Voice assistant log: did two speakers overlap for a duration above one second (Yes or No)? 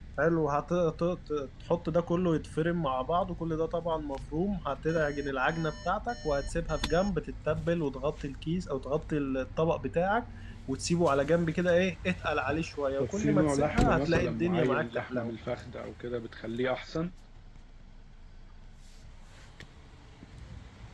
Yes